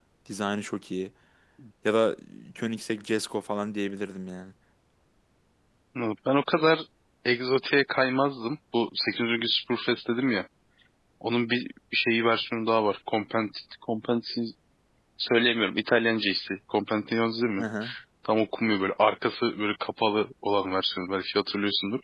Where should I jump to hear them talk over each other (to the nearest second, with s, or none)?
none